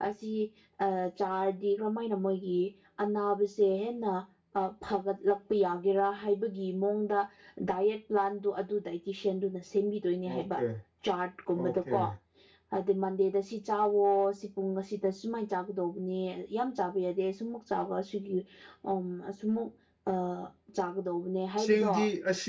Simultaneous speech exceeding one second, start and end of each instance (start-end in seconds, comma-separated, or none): none